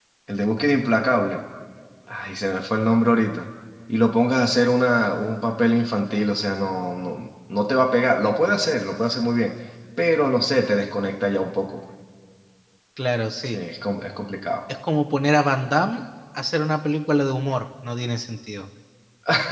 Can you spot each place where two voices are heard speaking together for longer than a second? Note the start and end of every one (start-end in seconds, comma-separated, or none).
none